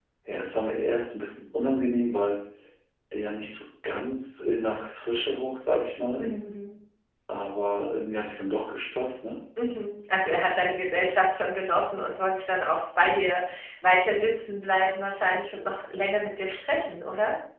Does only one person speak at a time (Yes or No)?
Yes